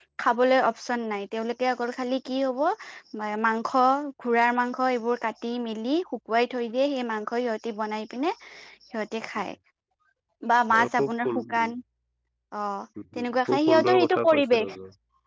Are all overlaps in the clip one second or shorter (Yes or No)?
No